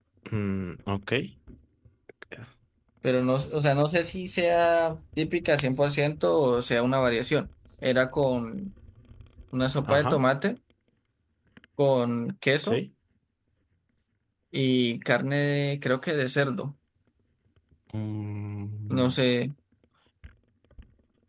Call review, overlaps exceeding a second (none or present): none